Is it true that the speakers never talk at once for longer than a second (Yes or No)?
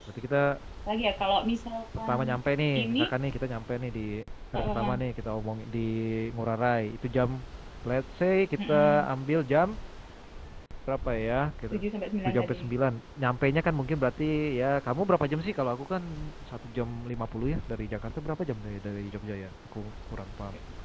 Yes